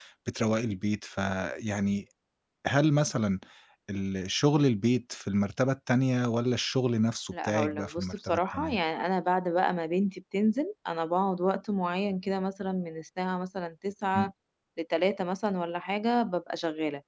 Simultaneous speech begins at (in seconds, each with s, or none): 7.3 s